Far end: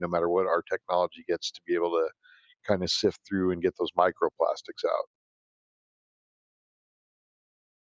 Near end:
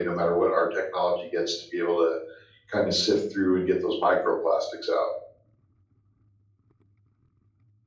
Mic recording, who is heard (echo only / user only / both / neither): echo only